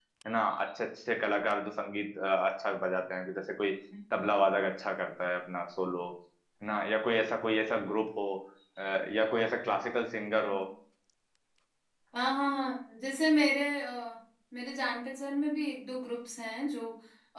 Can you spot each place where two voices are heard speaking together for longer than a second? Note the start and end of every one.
none

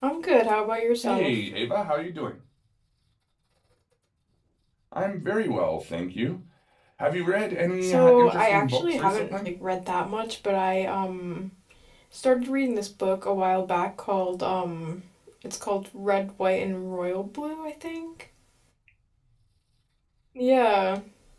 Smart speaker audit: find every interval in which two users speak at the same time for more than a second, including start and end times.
7.8-9.5

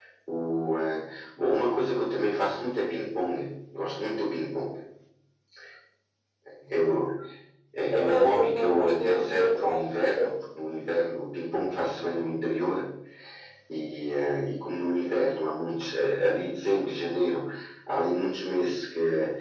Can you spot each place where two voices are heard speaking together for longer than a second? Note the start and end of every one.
7.9-9.8

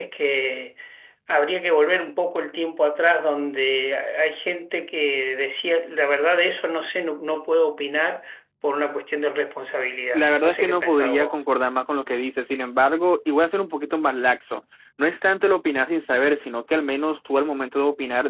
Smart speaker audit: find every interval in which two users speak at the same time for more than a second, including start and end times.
10.1-11.3

